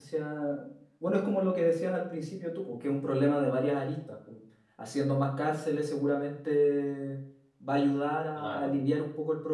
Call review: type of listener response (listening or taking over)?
listening